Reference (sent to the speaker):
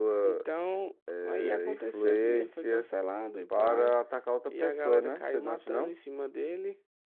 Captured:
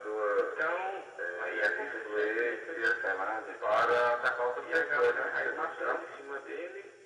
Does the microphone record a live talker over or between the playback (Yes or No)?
No